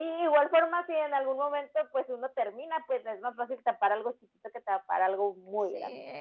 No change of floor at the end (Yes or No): No